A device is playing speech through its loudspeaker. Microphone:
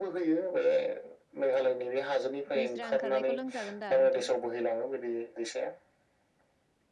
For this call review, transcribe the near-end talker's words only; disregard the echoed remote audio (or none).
निजोरा ओंखारनायखौ लोंजागोन दा नोंथां